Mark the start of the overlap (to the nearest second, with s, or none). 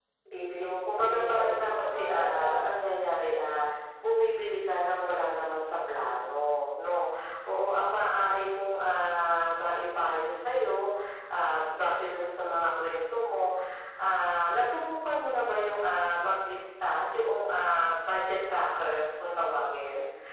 1 s